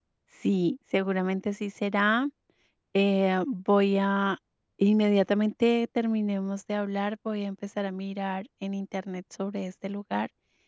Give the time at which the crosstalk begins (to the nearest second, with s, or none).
none